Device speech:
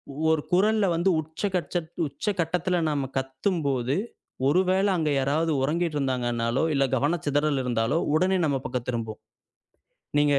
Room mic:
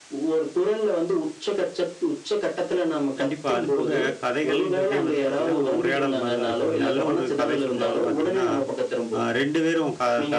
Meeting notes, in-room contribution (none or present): present